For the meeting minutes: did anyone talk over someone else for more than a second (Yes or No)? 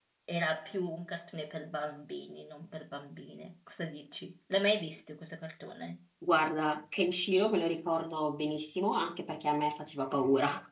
No